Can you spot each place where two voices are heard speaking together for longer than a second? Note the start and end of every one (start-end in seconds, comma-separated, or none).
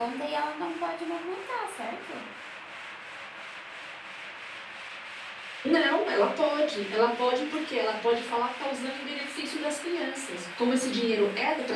none